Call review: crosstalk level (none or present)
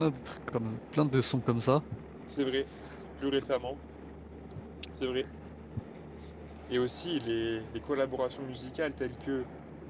none